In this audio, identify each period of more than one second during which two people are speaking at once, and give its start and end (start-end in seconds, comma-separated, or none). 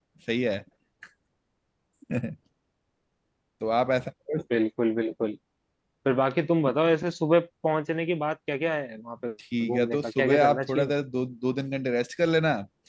9.6-10.9